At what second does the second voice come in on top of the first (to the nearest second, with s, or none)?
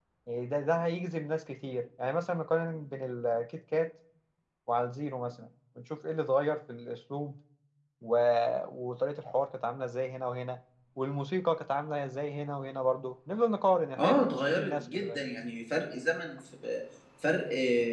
14 s